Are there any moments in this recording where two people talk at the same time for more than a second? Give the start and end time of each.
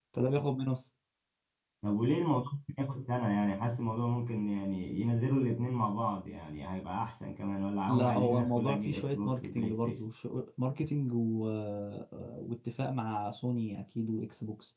7.9-10.1

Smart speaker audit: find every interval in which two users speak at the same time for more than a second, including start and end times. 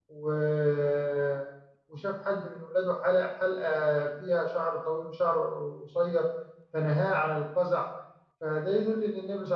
none

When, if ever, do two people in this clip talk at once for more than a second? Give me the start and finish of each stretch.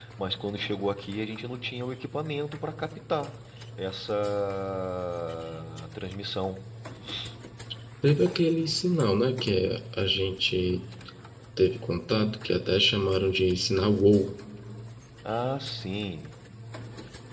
none

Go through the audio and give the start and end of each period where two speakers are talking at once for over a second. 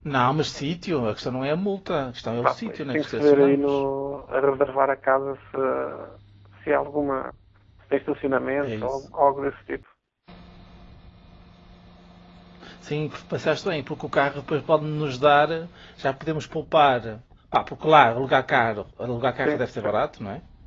2.4-3.8

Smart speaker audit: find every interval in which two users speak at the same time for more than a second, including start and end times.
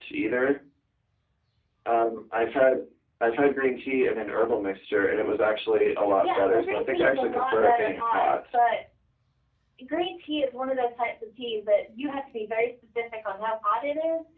6.2-8.3

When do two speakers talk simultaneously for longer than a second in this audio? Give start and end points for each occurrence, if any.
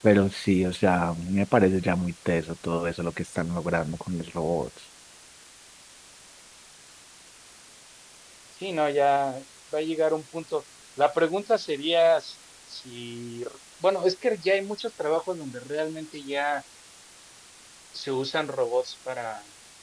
none

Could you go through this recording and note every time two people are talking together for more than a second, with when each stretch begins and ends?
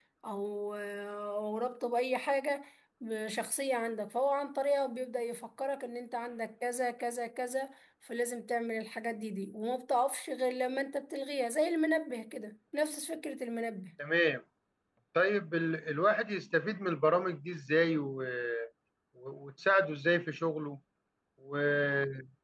none

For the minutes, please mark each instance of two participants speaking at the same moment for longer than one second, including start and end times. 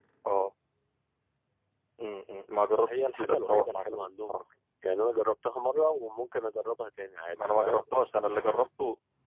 2.9-4.4

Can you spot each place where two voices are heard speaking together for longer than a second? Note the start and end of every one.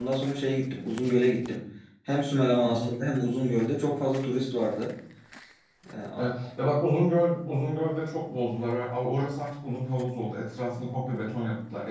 none

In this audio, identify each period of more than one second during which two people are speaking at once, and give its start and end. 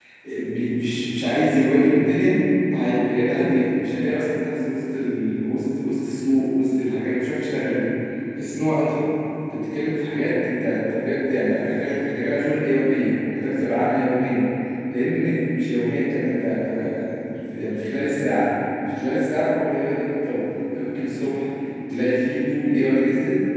none

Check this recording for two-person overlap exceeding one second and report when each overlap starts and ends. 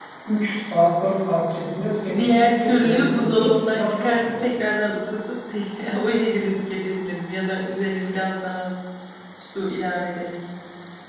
2.2-4.4

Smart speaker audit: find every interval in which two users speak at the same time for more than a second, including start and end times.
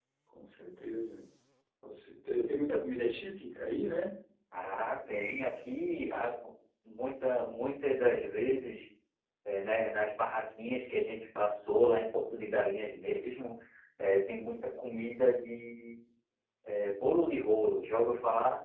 none

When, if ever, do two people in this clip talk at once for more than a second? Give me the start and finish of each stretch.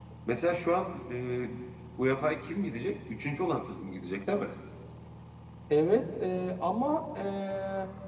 none

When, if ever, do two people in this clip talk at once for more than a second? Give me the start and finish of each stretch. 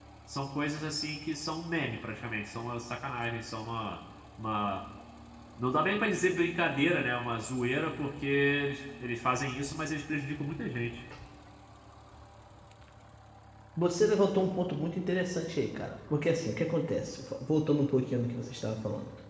none

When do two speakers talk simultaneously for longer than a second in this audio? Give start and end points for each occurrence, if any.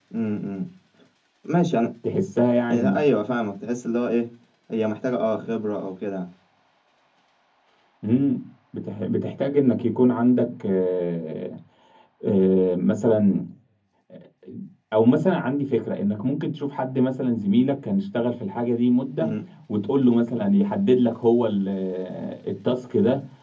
none

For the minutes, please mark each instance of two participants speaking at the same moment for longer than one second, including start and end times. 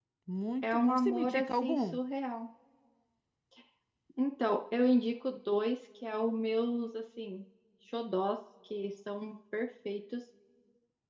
0.6-2.0

